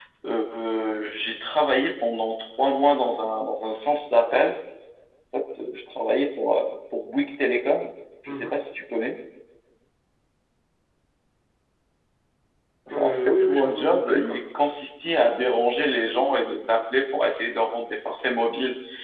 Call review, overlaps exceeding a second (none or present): present